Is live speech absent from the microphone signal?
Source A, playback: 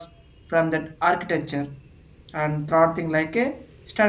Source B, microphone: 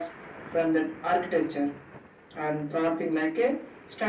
Yes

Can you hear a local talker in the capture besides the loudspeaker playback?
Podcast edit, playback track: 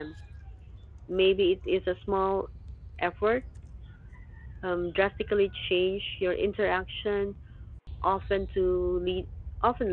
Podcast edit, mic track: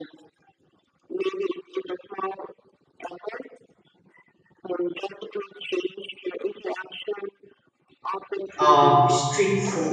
Yes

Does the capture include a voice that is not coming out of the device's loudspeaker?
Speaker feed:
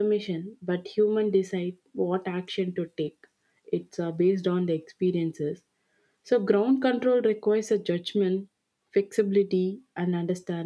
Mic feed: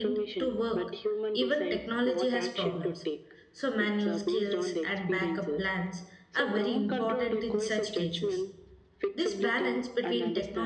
Yes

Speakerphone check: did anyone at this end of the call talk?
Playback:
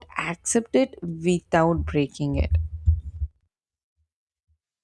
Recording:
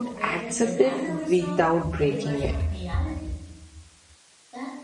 Yes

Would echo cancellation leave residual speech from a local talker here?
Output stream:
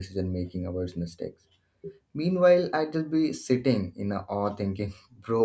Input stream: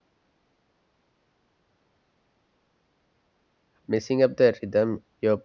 Yes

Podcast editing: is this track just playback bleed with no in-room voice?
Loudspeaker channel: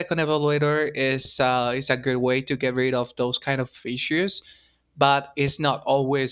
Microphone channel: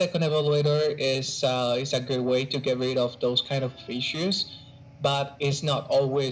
Yes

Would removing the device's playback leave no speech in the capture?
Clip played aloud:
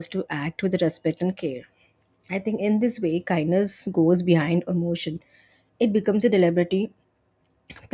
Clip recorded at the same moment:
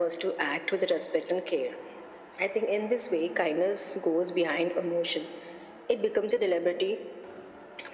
Yes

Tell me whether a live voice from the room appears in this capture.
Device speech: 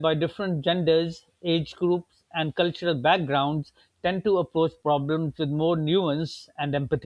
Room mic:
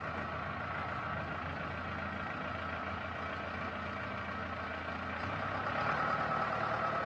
No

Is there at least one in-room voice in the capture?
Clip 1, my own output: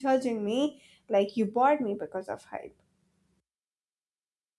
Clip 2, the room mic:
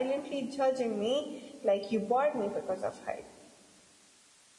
No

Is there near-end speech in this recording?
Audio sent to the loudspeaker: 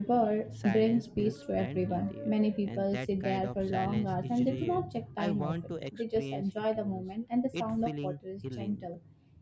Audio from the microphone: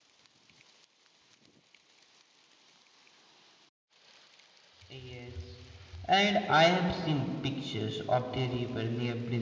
Yes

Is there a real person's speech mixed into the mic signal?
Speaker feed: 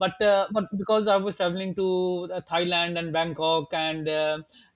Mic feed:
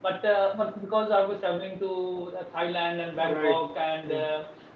Yes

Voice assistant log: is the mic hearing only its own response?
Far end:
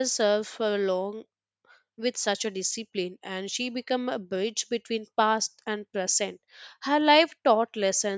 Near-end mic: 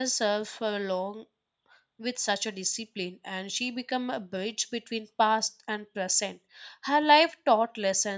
Yes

